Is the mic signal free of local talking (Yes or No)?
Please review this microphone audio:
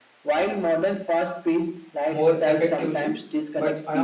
No